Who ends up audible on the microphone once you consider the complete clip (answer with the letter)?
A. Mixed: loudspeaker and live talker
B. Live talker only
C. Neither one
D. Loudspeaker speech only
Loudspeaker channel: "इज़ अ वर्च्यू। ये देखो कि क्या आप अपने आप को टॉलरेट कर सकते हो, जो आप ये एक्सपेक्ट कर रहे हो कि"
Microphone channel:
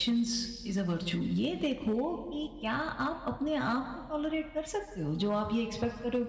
D